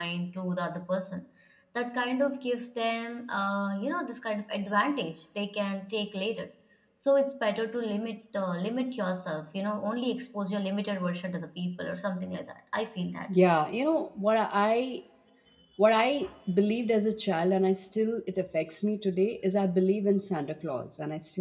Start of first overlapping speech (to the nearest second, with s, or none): none